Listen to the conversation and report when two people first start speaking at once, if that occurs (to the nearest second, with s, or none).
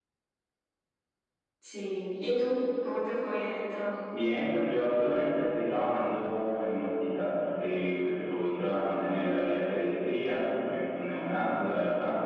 none